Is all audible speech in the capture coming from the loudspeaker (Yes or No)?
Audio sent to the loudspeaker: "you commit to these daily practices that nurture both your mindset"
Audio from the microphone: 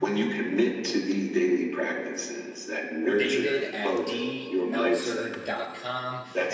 No